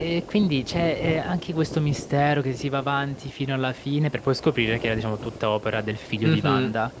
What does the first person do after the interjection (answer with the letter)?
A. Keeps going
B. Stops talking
B